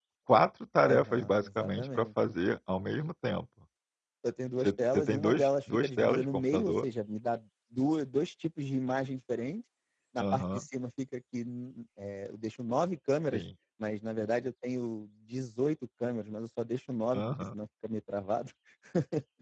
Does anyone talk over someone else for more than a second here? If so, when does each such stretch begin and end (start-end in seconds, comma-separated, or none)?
0.9-2.1, 4.6-6.8